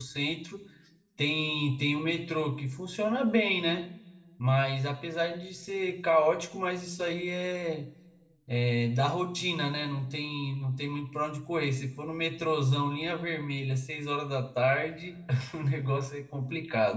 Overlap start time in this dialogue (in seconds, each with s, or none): none